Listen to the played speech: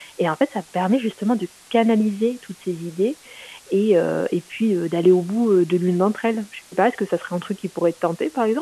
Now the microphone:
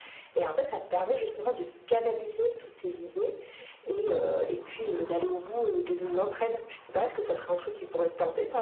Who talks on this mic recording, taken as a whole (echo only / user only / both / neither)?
echo only